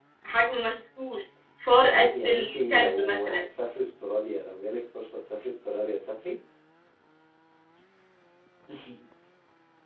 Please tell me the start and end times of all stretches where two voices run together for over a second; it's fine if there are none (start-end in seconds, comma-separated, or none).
1.8-3.4